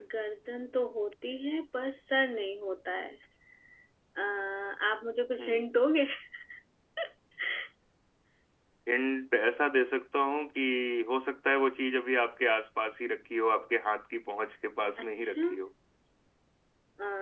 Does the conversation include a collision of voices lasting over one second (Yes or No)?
No